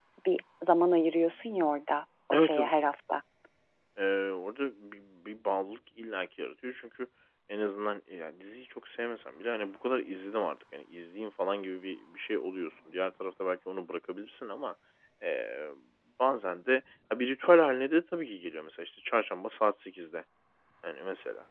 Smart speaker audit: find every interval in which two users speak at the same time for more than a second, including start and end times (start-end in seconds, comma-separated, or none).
none